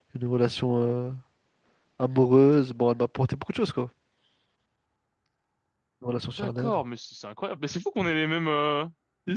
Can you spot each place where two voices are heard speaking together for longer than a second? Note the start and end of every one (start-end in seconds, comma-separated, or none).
none